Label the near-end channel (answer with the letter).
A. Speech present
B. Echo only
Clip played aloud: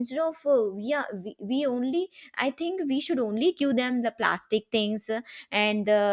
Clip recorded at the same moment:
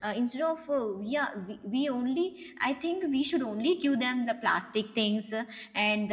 B